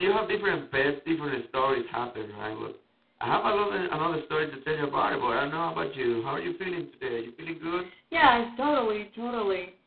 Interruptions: none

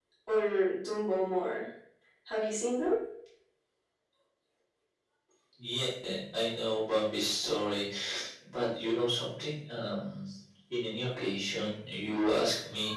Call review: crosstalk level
none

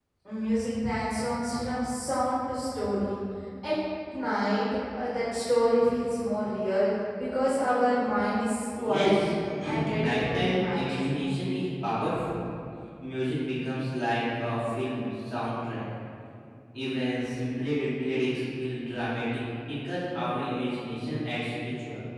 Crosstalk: present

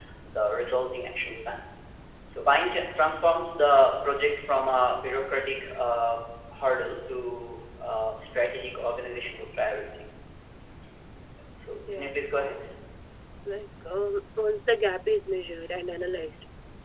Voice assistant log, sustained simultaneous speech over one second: none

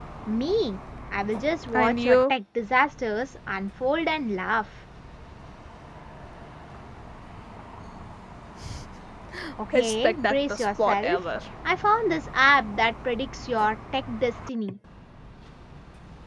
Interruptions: present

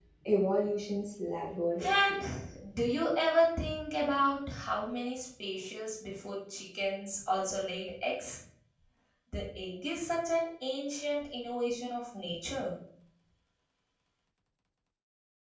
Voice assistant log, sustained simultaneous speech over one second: none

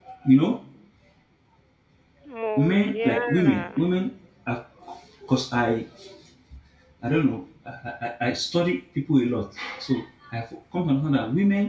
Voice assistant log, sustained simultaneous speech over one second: present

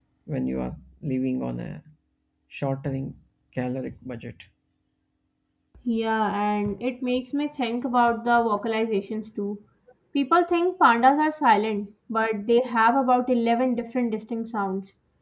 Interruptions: none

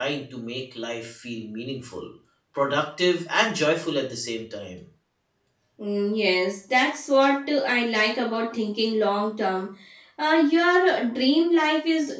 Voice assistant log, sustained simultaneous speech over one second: none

